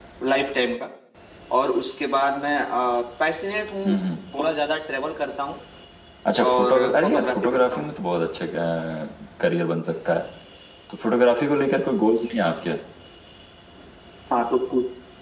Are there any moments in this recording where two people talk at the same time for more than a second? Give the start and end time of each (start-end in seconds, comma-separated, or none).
6.5-7.9